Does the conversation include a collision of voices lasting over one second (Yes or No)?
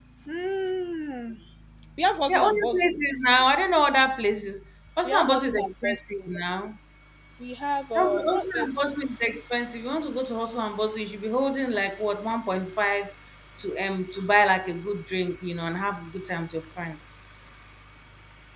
Yes